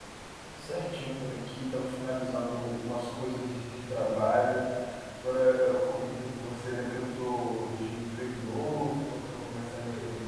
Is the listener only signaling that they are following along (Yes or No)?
Yes